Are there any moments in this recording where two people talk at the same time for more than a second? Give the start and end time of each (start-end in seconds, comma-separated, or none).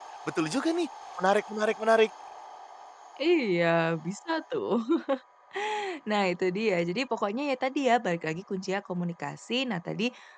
none